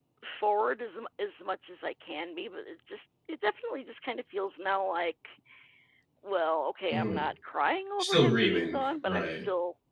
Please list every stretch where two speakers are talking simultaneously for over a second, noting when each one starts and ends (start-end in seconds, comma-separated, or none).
8.0-9.4